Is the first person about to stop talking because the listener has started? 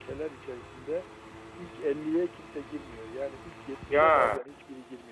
No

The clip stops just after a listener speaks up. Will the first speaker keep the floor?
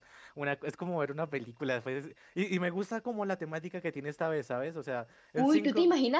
No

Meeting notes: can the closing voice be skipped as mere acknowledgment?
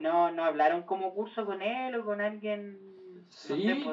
No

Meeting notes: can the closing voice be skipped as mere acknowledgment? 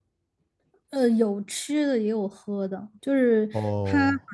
Yes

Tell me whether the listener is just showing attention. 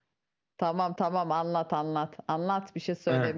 No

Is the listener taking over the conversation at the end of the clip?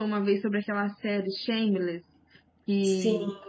No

